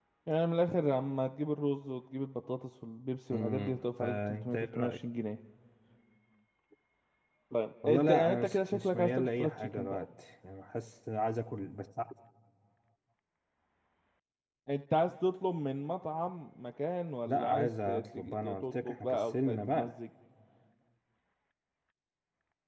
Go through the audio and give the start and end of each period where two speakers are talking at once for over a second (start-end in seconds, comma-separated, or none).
3.3-5.0, 7.8-10.0, 17.2-19.9